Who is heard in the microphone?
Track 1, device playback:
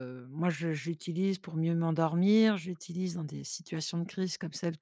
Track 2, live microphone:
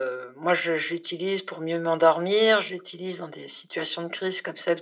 echo only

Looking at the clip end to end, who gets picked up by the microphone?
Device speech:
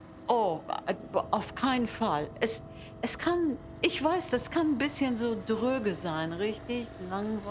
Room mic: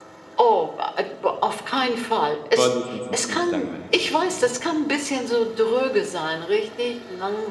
both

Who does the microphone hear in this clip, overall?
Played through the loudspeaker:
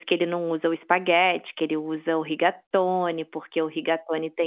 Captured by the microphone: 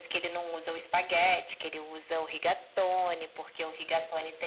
echo only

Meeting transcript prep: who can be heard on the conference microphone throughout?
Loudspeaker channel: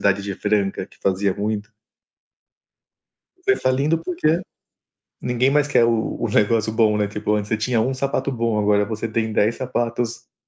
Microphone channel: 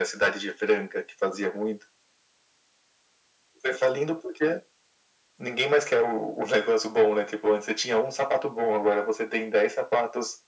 echo only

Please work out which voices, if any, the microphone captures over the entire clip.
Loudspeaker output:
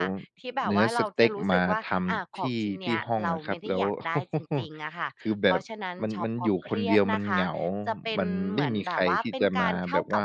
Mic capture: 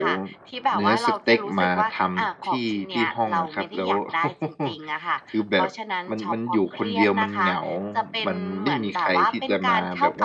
echo only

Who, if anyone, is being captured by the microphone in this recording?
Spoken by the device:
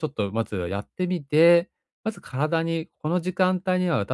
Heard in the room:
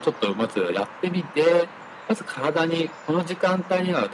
echo only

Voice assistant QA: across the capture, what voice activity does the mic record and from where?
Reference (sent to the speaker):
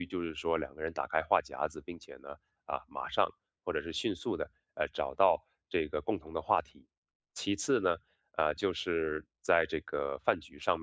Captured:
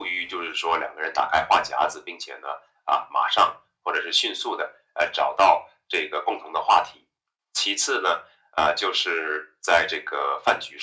echo only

